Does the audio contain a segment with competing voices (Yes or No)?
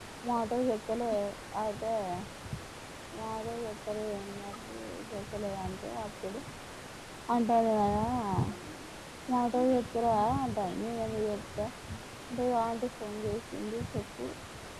No